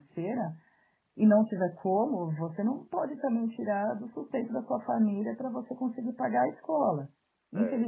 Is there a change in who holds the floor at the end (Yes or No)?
No